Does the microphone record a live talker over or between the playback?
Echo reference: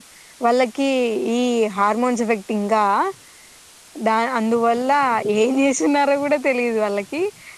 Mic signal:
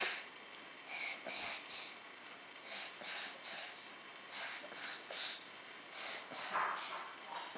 No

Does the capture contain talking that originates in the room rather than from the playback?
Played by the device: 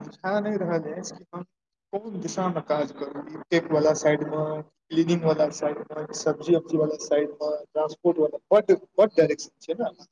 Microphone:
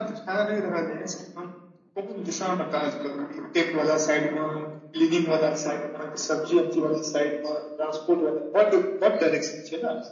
No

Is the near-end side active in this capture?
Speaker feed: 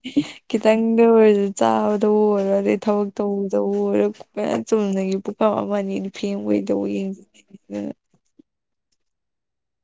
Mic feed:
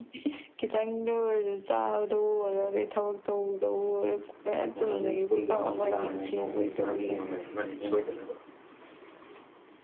Yes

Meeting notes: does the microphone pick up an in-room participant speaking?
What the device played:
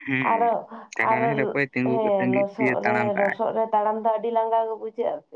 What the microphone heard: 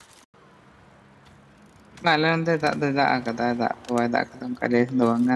Yes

